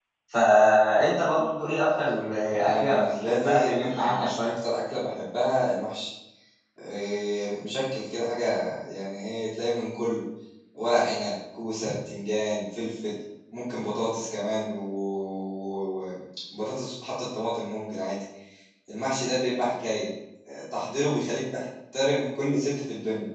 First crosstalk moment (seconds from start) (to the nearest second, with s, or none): 2 s